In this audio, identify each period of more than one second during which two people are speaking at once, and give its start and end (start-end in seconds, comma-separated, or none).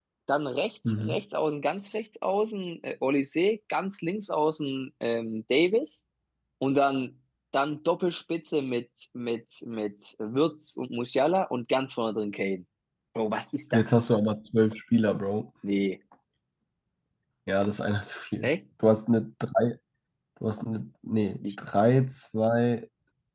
none